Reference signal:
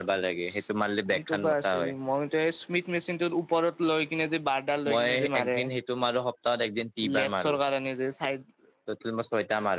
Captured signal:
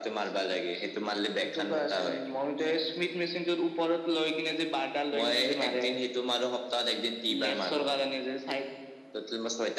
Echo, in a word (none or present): present